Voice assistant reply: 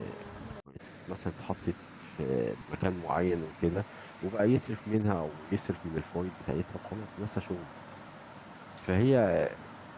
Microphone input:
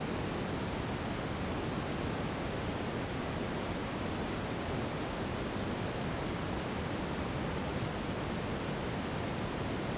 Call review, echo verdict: none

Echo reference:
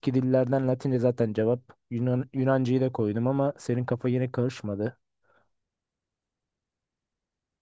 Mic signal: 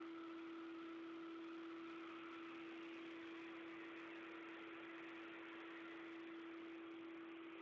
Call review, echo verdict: none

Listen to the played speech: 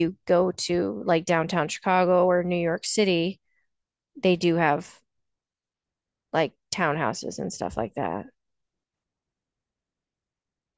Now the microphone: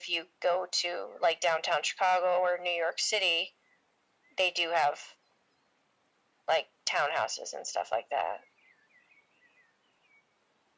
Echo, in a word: present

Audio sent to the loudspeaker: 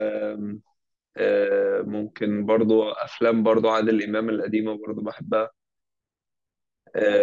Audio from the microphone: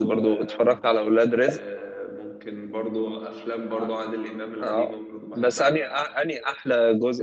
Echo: present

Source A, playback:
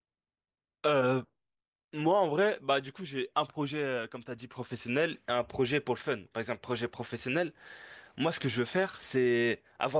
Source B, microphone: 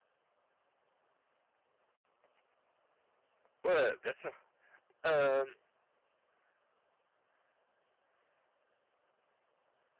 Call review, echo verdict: none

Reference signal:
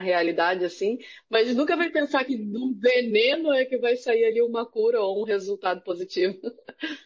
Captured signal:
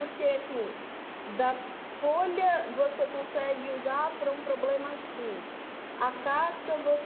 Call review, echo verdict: none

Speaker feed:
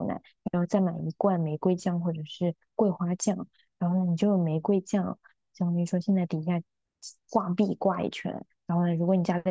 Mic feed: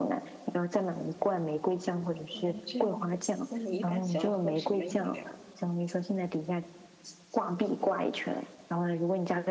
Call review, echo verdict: present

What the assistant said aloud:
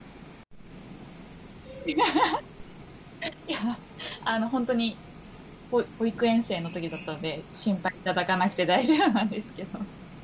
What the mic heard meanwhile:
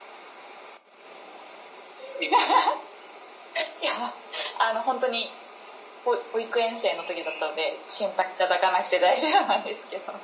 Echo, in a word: present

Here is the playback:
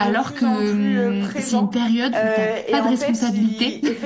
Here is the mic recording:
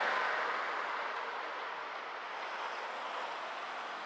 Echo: none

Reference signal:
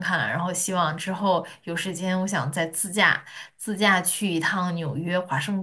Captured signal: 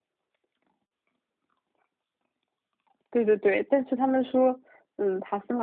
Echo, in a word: none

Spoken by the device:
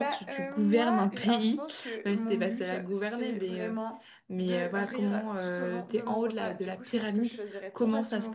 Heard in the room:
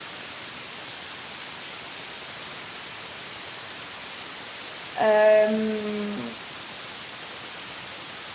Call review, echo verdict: none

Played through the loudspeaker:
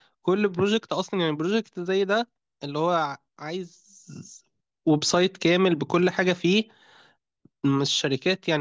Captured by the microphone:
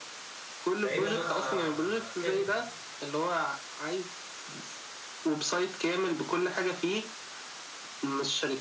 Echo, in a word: present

